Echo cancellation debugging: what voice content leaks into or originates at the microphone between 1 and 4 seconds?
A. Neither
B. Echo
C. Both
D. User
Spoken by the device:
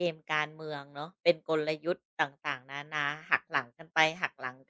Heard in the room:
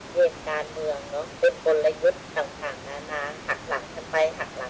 B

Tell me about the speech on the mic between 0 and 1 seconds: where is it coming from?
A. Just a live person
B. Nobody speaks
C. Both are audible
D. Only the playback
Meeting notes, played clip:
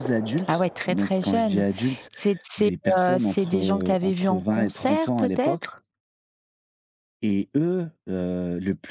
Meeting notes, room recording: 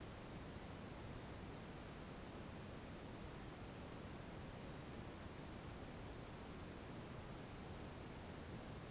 B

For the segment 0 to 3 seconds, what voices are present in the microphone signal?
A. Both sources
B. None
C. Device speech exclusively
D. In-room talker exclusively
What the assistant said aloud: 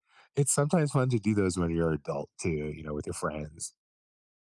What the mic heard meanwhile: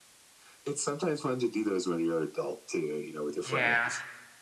C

